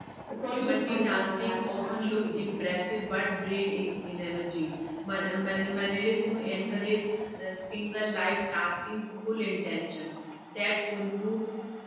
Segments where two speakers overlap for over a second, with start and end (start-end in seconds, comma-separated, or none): 0.6-2.6